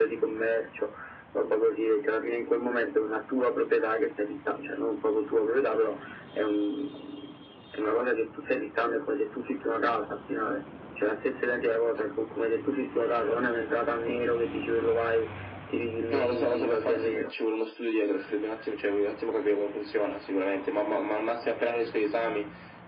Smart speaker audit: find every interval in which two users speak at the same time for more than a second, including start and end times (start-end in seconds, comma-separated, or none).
16.1-17.3